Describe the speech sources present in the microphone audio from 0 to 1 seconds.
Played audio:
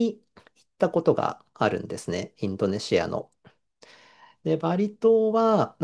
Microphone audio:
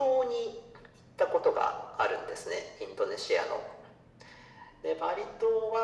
echo only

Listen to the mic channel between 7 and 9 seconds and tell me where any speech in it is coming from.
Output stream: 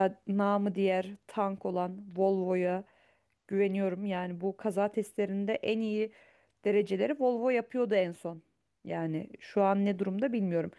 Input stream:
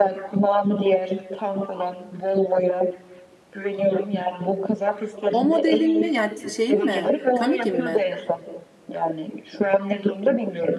both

